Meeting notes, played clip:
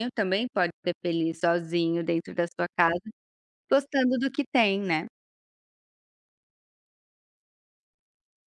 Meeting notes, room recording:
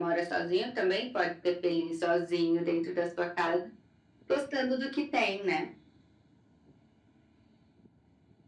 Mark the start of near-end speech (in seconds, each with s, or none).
none